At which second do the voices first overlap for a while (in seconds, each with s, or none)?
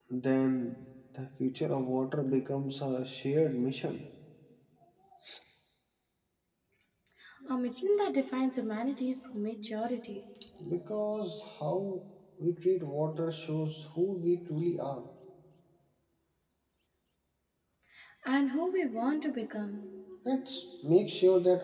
none